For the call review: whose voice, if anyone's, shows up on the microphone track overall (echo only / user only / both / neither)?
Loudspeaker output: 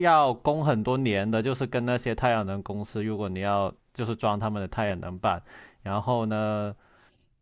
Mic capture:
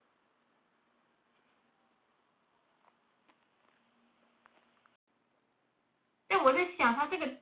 user only